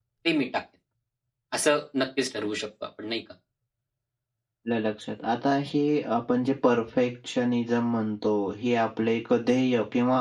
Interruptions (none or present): none